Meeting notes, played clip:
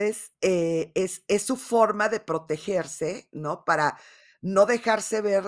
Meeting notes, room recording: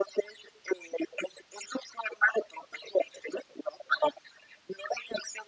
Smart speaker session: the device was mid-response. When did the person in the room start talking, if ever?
none

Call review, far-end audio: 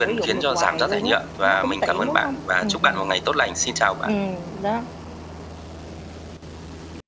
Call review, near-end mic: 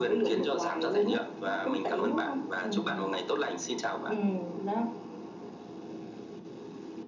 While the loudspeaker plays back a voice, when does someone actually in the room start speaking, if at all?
none

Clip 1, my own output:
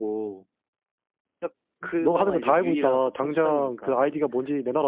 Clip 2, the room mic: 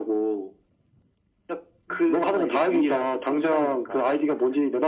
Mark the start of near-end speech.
none

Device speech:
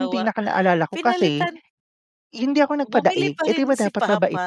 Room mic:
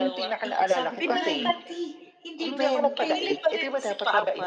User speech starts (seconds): 0 s

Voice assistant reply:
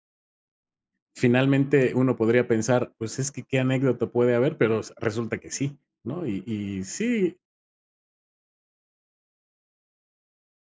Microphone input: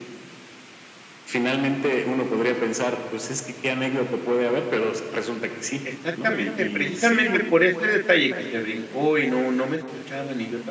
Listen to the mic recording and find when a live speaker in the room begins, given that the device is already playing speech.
6 s

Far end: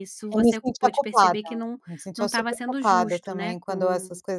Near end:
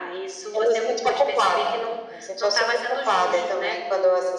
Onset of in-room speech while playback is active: none

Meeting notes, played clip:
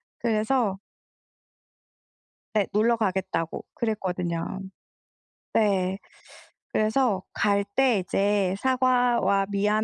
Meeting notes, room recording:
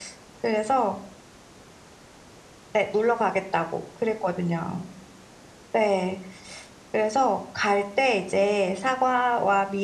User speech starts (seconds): none

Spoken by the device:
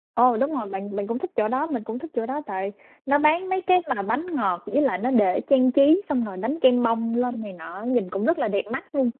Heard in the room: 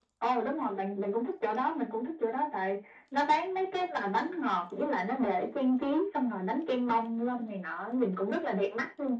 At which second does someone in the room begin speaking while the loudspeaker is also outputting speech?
none

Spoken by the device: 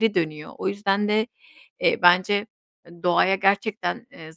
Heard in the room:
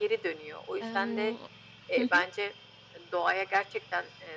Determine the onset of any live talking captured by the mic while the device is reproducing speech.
1 s

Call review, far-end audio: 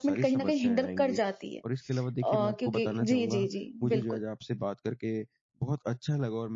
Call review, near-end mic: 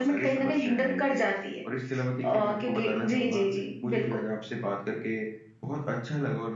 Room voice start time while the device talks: none

